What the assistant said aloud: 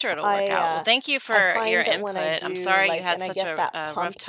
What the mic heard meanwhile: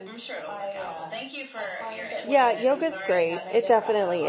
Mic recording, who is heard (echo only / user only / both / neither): both